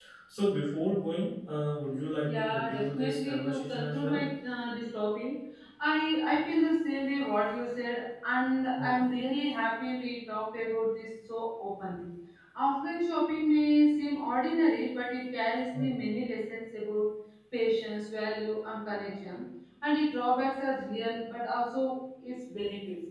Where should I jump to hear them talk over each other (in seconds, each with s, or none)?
2.2 s